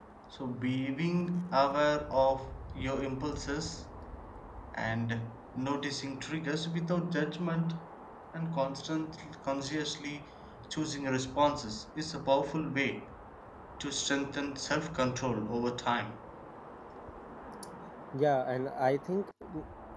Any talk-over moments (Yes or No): No